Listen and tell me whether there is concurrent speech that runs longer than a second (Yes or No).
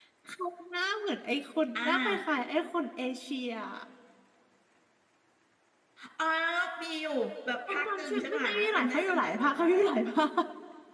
Yes